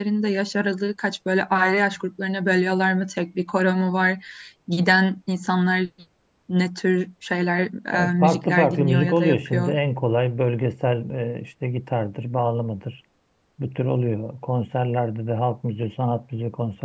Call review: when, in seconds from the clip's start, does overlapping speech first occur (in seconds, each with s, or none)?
7.9 s